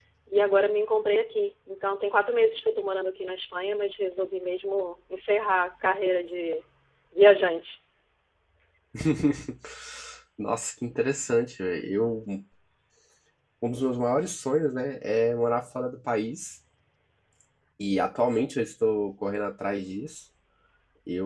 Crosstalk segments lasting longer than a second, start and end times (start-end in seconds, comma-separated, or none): none